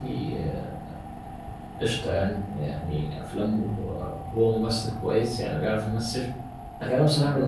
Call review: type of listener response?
listening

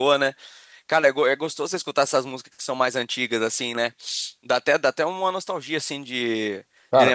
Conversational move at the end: listening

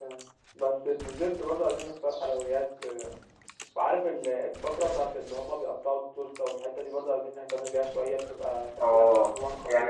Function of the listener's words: taking over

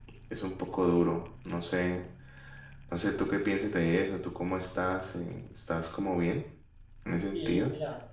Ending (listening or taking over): taking over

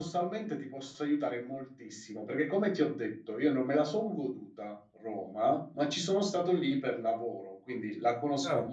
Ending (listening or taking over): listening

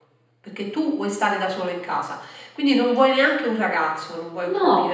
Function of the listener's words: listening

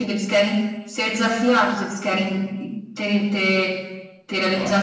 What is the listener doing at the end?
listening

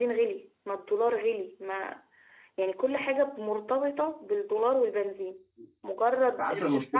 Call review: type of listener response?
listening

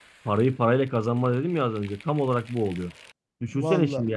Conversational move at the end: listening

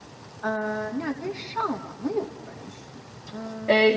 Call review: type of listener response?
taking over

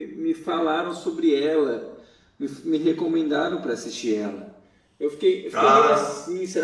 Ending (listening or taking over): listening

